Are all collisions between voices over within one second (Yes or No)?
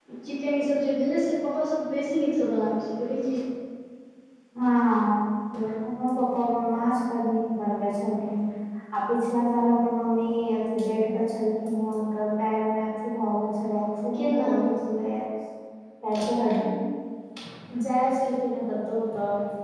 Yes